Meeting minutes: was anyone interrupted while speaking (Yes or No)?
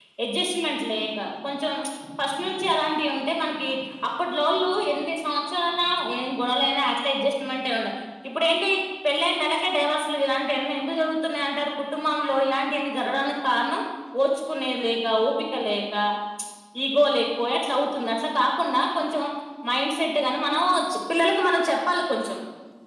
No